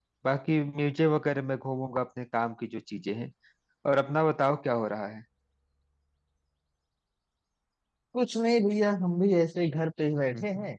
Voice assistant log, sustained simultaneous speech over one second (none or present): none